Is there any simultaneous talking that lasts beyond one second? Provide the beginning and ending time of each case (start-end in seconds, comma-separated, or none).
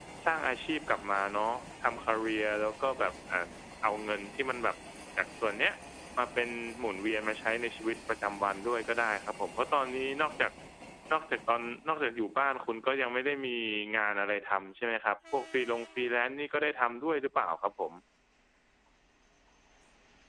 none